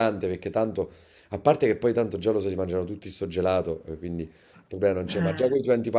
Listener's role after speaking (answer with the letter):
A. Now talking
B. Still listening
B